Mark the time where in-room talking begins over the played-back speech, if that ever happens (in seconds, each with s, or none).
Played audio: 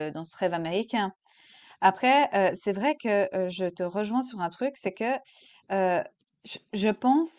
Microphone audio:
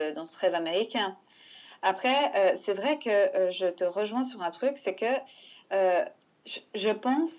none